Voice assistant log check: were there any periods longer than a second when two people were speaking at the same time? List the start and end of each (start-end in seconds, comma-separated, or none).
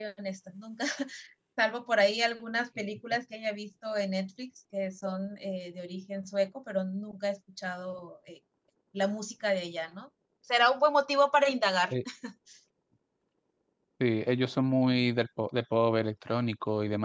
none